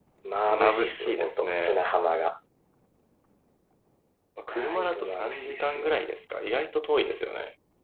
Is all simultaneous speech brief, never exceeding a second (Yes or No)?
No